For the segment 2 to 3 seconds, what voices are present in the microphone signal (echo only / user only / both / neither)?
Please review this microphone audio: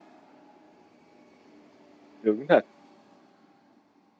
user only